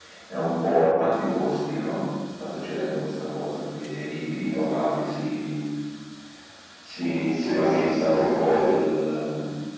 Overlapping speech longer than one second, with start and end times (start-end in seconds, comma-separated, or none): 7.3-8.7